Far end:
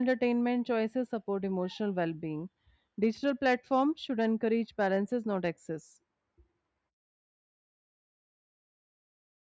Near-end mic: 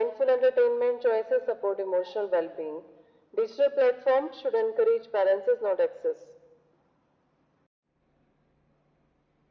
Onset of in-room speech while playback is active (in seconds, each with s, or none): none